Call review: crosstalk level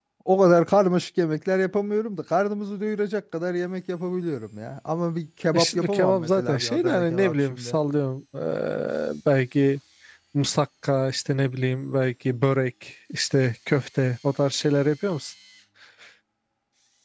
present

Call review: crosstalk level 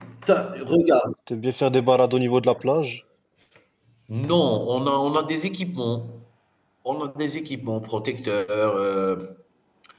none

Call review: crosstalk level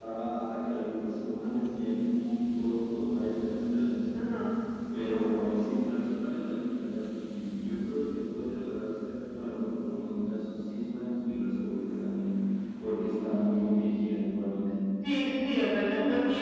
none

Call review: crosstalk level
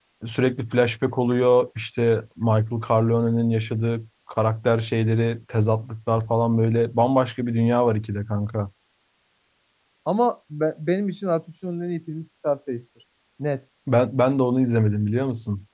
none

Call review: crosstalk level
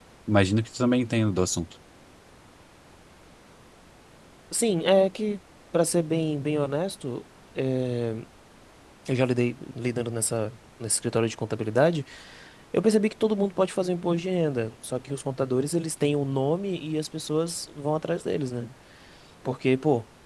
none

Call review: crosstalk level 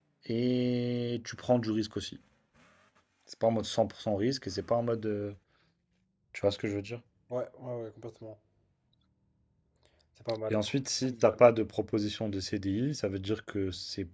none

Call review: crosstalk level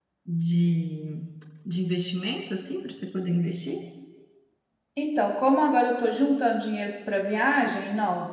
none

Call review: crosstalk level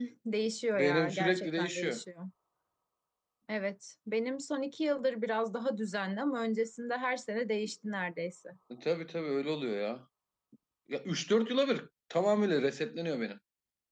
present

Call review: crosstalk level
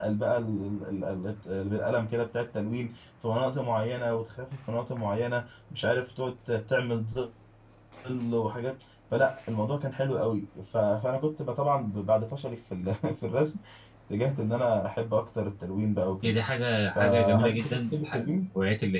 present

